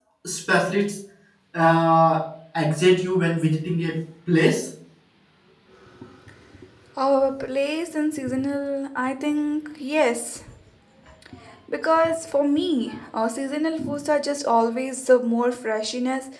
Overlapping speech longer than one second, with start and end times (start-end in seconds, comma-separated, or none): none